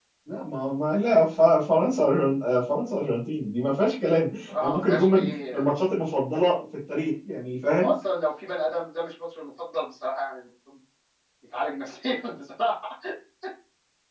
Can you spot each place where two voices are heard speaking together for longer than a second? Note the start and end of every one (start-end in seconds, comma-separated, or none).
4.5-5.7